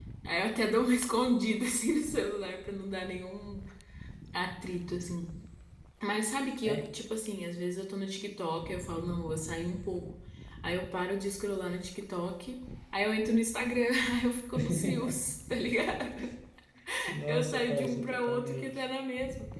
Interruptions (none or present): present